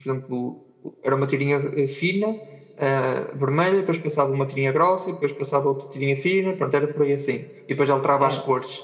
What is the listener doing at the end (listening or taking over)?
listening